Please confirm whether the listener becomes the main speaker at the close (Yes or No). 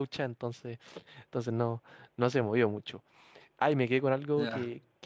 No